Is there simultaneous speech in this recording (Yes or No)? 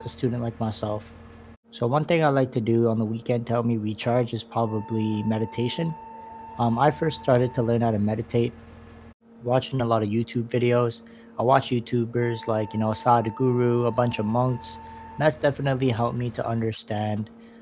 No